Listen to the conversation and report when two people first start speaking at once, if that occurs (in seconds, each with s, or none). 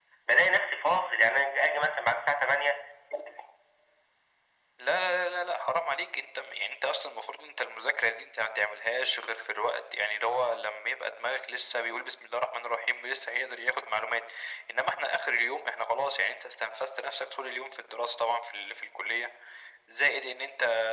none